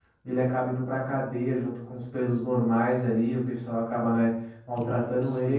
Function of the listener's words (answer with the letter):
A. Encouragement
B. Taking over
A